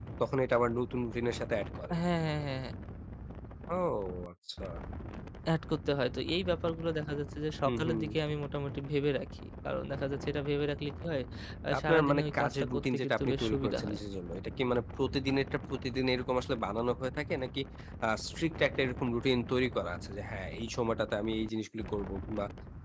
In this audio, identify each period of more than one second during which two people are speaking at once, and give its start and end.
11.8-14.0

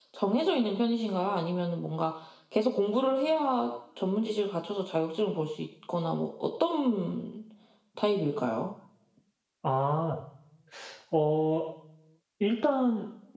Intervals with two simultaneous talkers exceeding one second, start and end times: none

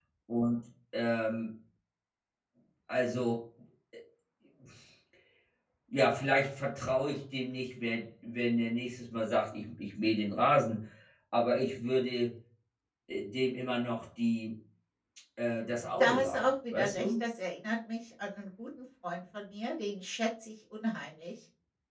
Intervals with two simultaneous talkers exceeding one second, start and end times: 16.0-17.2

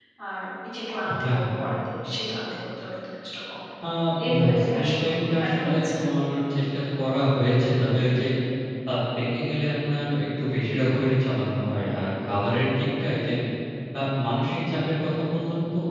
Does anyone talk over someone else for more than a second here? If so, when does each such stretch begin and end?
4.4-5.9

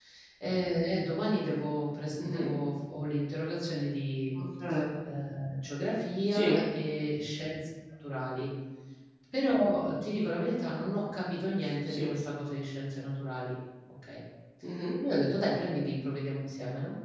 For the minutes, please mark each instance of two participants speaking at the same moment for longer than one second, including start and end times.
none

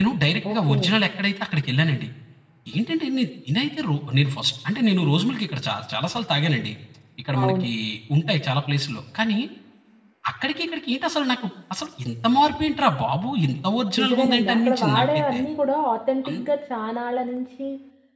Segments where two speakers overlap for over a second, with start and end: 14.0-15.4

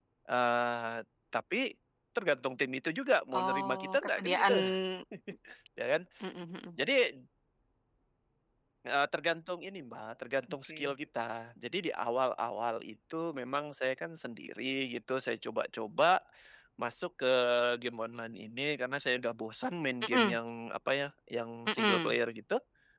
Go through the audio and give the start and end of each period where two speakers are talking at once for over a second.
3.3-4.5

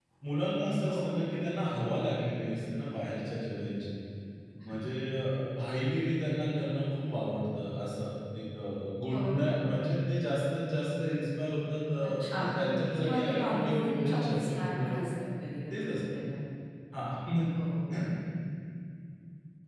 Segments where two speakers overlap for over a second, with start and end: 13.0-14.9

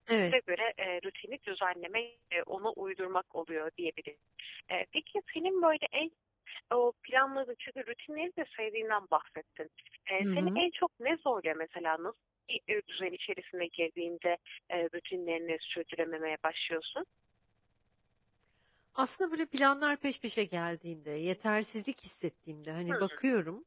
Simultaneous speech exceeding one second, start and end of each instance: none

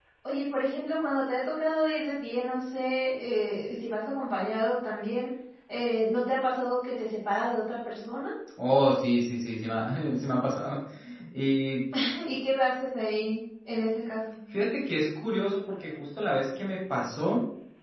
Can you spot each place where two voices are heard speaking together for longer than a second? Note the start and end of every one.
none

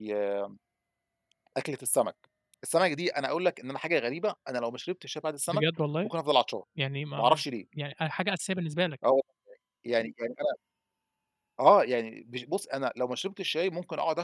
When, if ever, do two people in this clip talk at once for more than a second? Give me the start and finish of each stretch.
none

